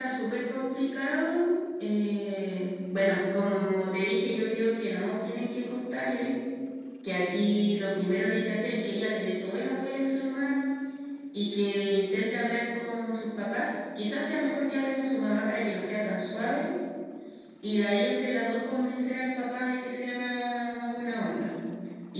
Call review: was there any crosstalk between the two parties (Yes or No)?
No